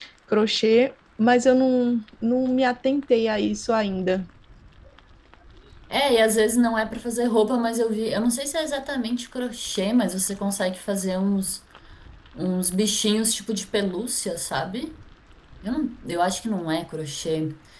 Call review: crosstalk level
none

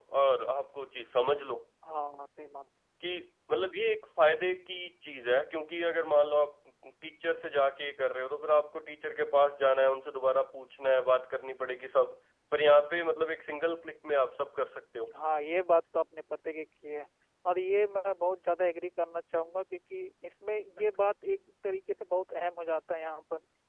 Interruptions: none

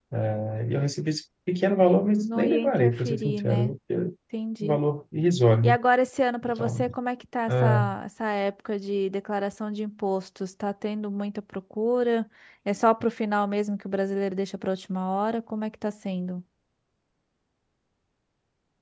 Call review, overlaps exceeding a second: present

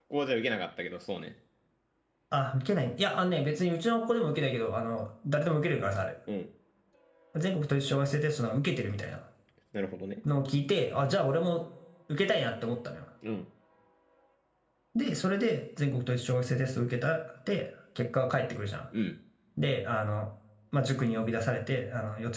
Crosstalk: none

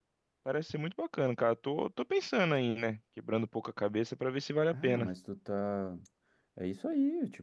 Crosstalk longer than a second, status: none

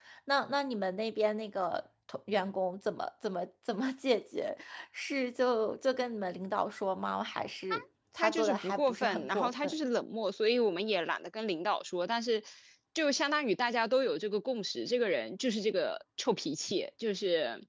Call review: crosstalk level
present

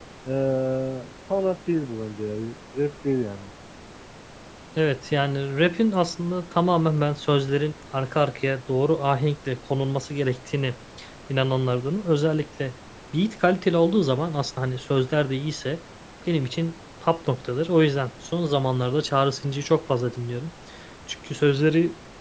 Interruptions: none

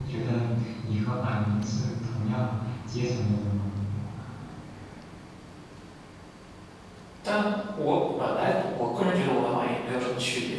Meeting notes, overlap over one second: none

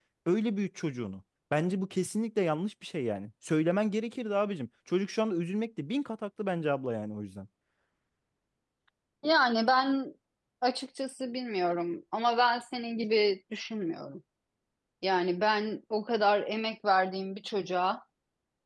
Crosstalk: none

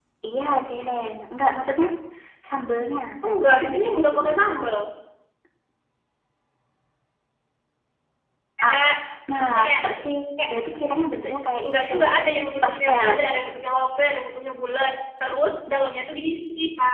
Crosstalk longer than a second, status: present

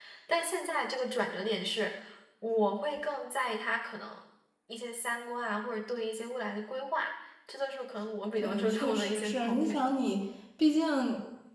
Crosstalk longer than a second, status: present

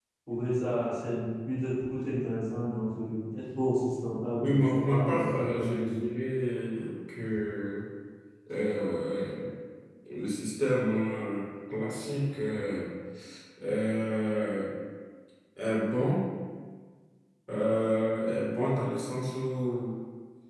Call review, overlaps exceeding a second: present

